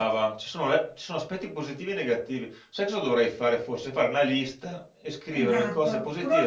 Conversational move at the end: taking over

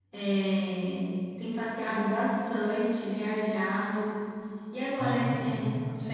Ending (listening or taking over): listening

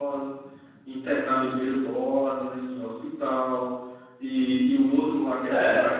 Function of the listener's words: listening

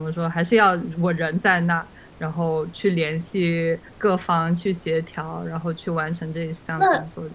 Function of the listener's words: taking over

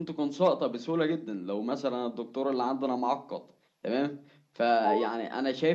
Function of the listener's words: listening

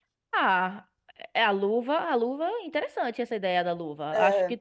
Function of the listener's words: listening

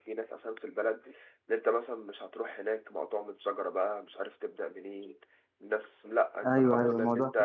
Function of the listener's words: taking over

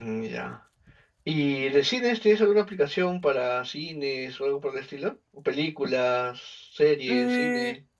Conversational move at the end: taking over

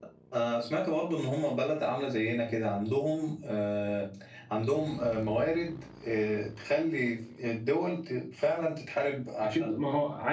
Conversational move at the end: taking over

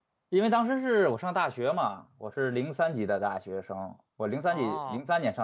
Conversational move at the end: listening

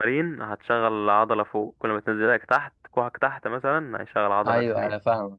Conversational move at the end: taking over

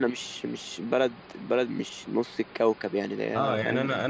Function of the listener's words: taking over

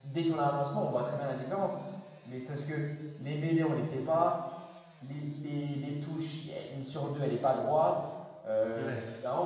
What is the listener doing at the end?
listening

